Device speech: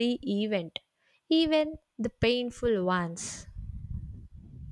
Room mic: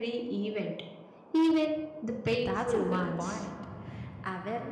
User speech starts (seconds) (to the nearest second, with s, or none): 2 s